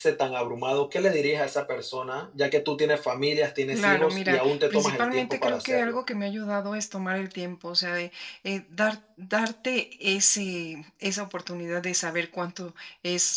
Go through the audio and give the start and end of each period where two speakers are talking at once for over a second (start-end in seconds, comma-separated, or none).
3.7-6.0